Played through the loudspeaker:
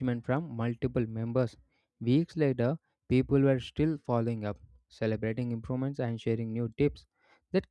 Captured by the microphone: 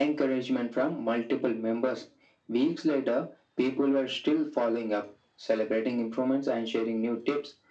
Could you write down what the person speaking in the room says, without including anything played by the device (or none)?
none